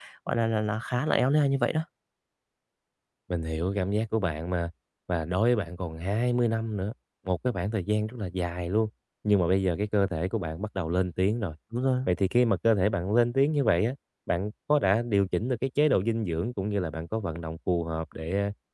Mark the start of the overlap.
none

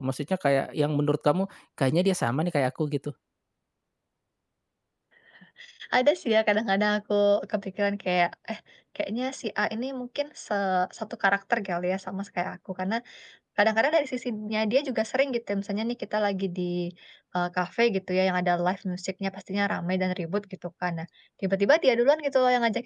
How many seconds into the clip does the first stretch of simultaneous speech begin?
none

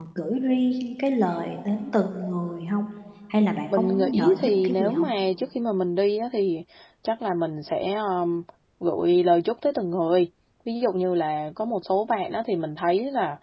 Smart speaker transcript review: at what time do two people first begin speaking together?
3.7 s

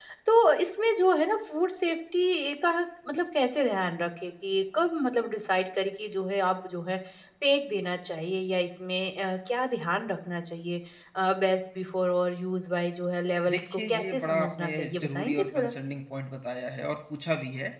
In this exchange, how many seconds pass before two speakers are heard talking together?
13.5 s

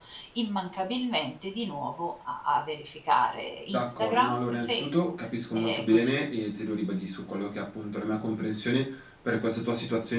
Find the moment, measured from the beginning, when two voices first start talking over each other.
3.7 s

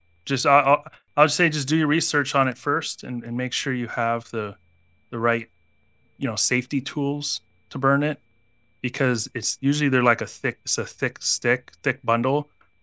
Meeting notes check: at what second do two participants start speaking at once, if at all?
none

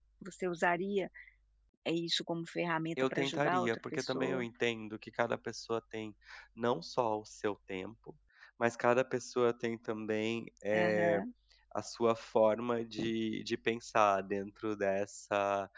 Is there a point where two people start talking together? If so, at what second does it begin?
3.0 s

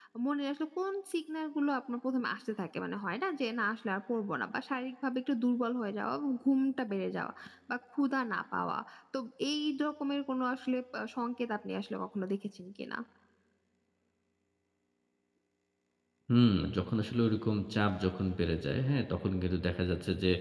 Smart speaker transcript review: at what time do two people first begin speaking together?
none

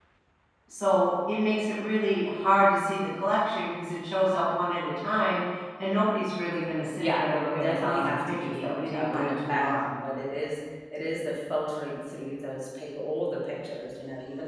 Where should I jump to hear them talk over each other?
7.0 s

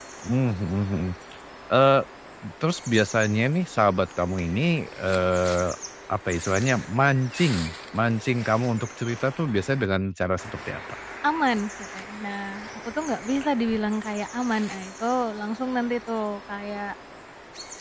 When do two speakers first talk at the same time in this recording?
none

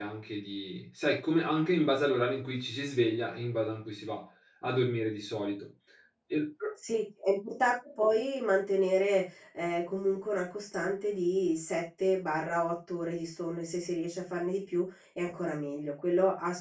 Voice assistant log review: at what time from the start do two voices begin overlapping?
none

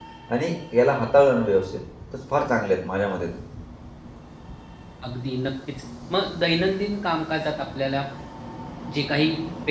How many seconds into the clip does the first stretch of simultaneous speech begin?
none

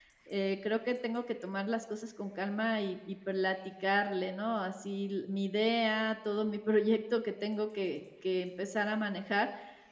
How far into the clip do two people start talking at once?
none

